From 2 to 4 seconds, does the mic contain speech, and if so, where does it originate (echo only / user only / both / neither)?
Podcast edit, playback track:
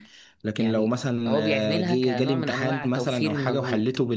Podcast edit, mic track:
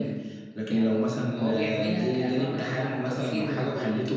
echo only